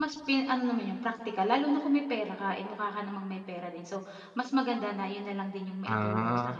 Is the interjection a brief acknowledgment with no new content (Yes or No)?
No